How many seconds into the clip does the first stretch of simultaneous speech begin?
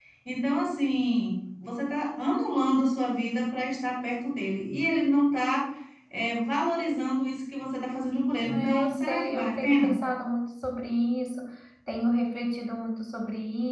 8 s

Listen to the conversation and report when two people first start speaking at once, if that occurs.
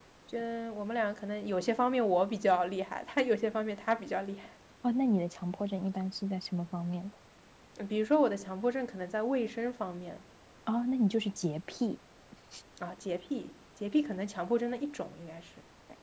none

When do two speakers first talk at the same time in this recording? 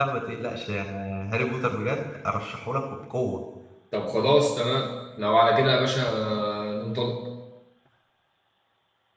none

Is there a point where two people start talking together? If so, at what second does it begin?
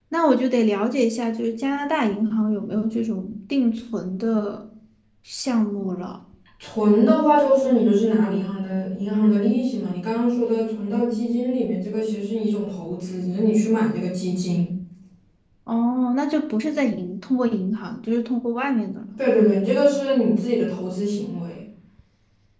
none

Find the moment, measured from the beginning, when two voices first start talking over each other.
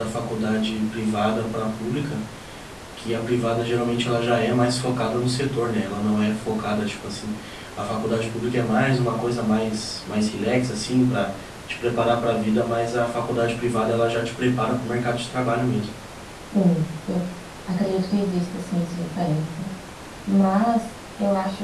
none

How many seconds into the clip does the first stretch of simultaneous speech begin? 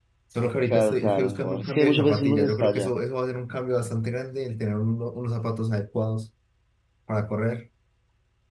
1 s

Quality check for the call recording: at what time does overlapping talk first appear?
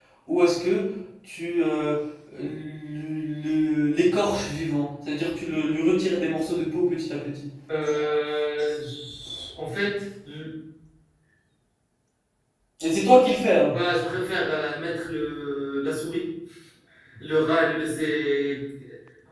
none

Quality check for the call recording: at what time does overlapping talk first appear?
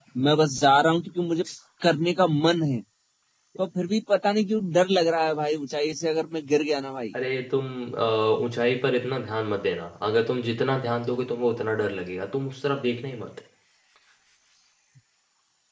none

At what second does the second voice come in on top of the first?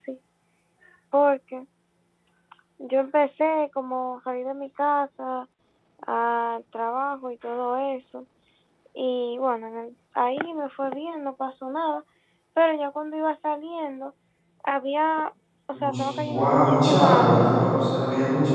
16 s

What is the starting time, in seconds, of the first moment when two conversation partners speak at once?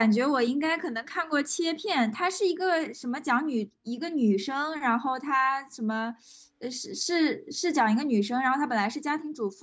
none

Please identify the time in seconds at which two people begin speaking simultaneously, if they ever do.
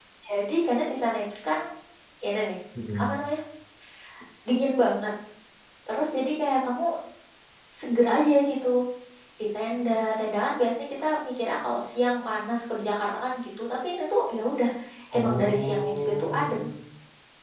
15 s

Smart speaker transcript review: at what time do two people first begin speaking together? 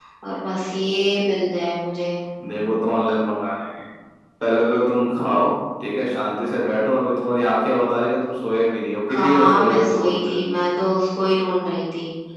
9 s

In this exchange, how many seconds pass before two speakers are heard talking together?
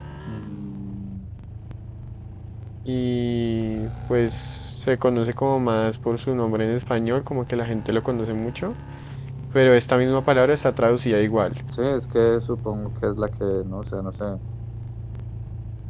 none

